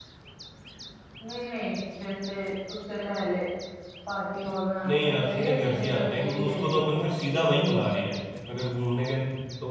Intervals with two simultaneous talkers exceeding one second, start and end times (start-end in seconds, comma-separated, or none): 4.9-7.9